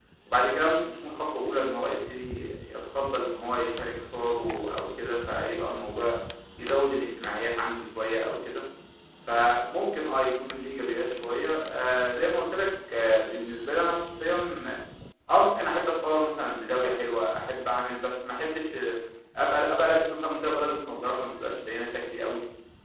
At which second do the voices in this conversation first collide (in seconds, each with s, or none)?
none